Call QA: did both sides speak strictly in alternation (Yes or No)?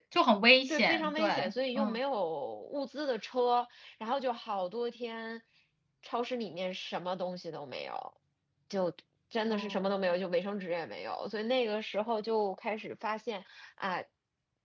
No